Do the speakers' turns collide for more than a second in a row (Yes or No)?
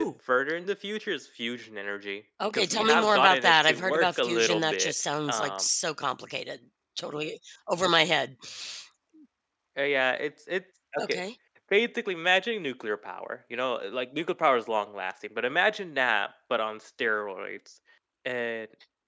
Yes